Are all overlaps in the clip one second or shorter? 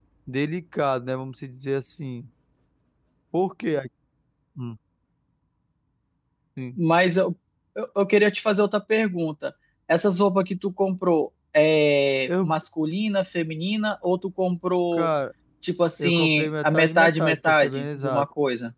No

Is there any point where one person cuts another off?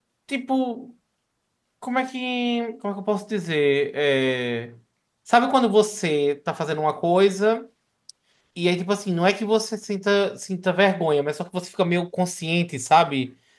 No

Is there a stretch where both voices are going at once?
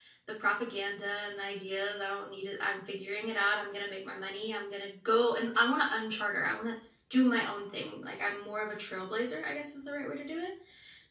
No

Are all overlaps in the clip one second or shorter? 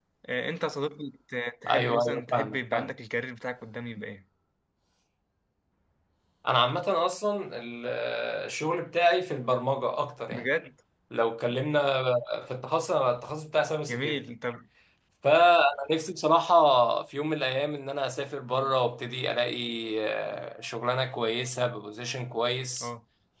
No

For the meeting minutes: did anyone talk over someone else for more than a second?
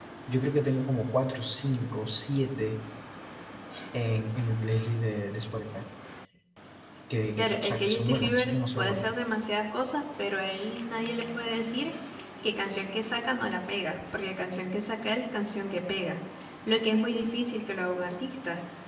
Yes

